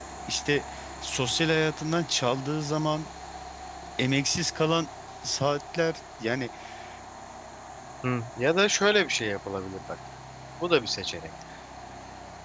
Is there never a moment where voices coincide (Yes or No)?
Yes